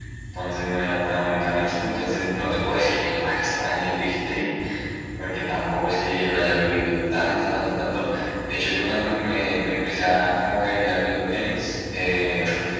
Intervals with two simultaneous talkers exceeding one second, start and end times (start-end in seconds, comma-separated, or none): none